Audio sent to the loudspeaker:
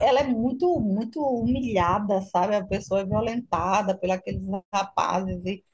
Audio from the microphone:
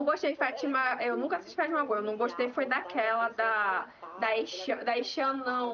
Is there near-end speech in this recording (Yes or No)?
Yes